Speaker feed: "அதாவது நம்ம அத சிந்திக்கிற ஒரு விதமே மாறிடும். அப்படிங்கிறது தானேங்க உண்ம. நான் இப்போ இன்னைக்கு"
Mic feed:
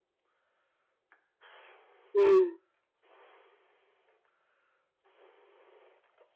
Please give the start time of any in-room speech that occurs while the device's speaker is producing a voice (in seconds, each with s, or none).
2.1 s